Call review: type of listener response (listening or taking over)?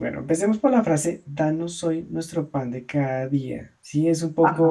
listening